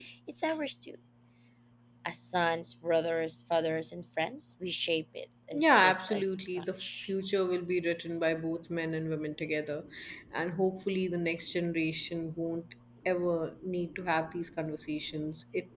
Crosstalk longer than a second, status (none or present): present